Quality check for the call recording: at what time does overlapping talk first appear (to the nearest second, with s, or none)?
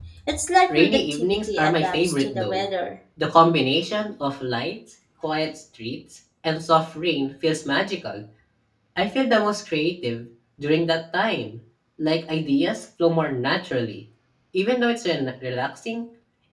1 s